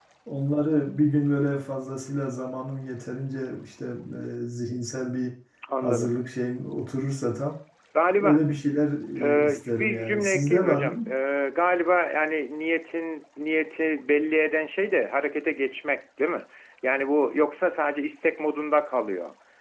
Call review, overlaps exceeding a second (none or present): present